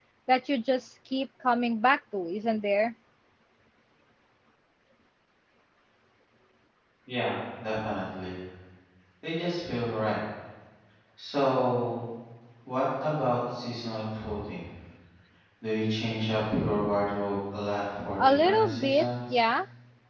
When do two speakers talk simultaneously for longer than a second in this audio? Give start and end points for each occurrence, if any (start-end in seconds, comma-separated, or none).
18.2-19.4